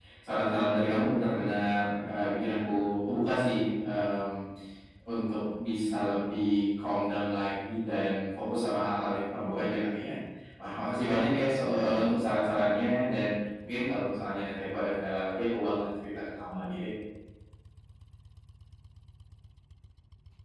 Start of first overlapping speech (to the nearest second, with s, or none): none